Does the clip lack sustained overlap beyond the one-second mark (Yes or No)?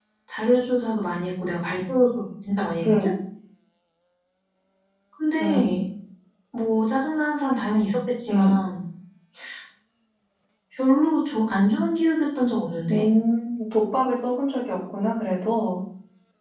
Yes